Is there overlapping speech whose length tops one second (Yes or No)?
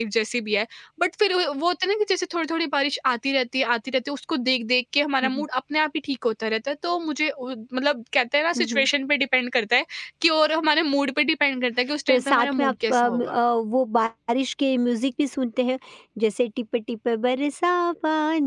Yes